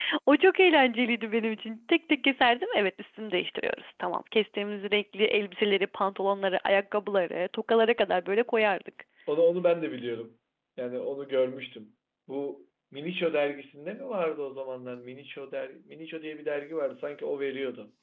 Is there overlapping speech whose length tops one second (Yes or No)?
No